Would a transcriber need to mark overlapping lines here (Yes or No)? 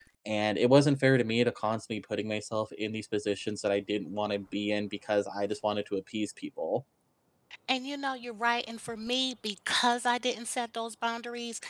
No